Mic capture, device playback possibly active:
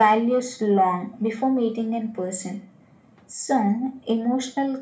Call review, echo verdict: present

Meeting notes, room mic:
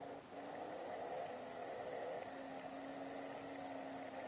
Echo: none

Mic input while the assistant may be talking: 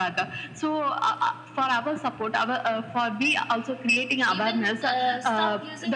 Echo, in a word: present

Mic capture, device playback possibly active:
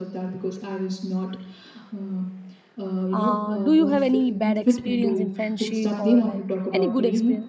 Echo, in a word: present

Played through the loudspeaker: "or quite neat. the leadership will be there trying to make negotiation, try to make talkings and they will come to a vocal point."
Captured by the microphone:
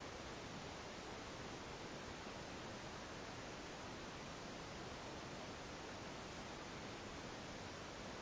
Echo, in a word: none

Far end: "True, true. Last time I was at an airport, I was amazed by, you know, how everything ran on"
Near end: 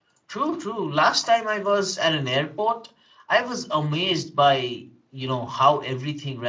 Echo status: present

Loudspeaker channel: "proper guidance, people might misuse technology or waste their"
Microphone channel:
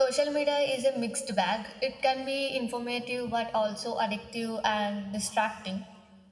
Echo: none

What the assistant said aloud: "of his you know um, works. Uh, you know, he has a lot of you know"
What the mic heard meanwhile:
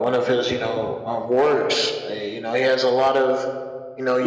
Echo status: present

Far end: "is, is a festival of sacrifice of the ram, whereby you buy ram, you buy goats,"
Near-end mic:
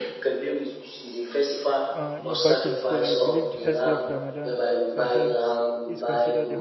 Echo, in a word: present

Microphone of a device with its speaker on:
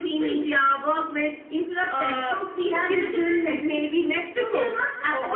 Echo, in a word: present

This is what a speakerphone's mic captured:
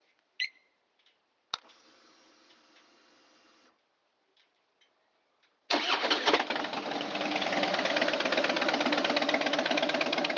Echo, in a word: none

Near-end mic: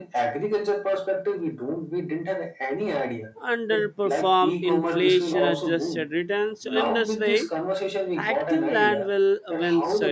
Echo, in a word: present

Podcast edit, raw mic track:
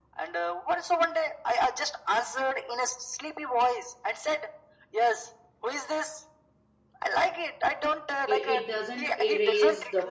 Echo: present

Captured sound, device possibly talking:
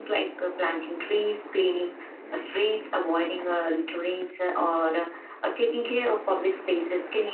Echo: present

